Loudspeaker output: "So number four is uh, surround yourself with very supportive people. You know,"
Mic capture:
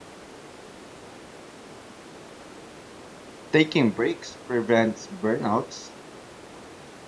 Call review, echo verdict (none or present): none